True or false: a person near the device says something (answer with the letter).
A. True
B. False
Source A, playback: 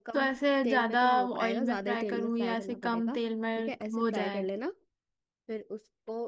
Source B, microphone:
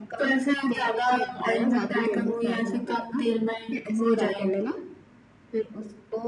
B